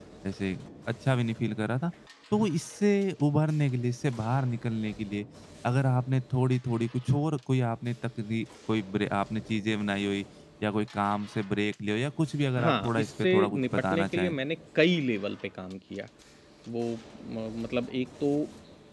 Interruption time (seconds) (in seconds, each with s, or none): 12.6 s